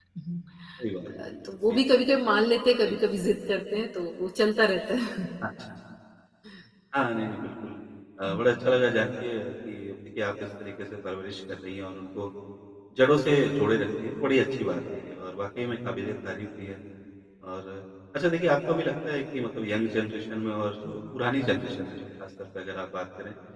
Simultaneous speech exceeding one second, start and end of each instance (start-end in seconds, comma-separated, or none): none